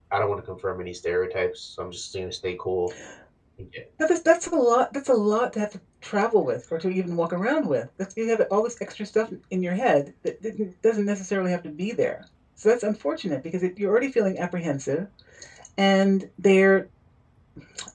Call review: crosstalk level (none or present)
none